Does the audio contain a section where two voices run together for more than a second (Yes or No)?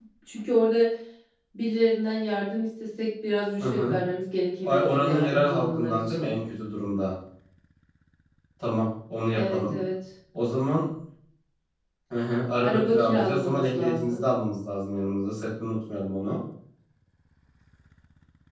Yes